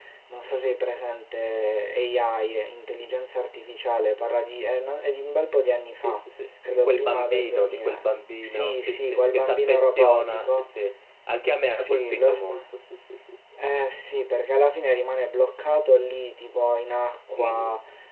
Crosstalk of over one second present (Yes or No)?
Yes